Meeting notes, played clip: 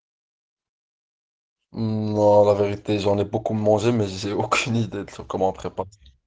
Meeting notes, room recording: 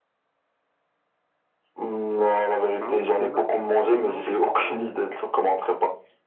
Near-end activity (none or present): present